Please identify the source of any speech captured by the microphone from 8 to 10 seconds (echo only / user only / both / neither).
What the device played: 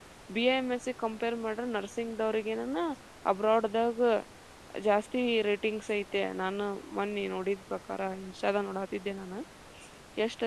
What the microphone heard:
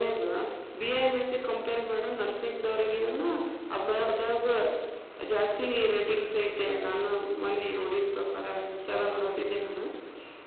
echo only